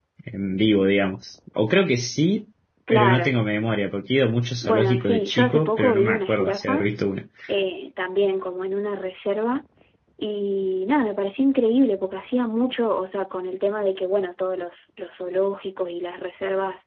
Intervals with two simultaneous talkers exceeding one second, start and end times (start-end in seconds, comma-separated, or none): 4.6-6.8